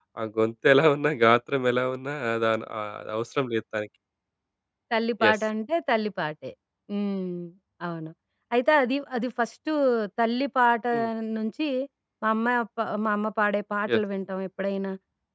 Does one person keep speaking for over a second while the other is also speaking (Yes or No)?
No